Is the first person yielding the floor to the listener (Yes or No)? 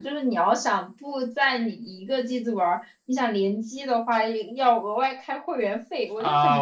Yes